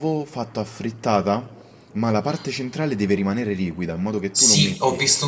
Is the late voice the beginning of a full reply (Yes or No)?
Yes